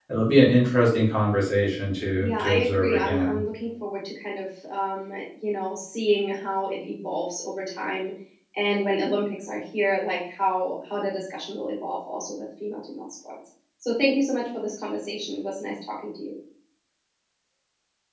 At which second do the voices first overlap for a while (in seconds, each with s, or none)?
2.2 s